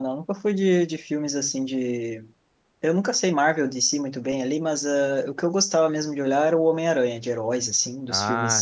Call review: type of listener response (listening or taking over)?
listening